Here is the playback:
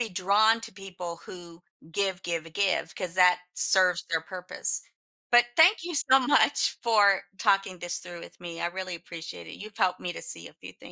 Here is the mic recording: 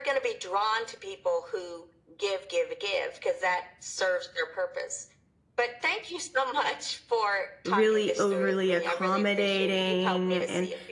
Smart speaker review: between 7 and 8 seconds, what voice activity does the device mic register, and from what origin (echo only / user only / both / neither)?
both